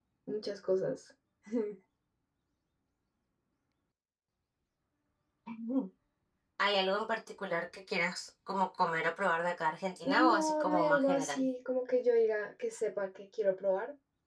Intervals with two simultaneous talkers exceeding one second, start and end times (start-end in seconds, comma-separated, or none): 10.0-11.5